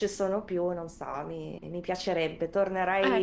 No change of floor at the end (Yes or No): Yes